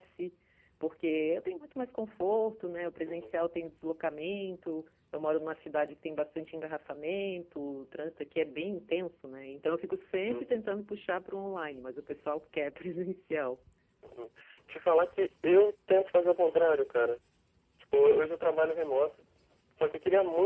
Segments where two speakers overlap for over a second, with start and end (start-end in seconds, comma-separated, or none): none